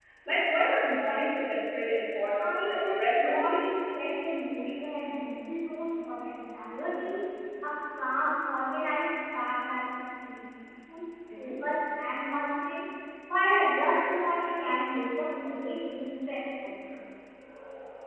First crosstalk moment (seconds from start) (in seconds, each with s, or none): 2.4 s